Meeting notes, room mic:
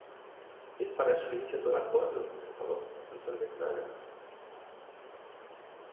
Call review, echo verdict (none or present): none